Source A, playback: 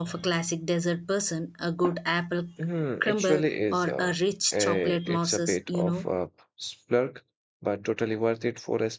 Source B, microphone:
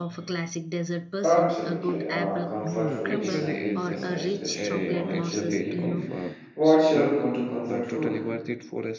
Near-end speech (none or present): present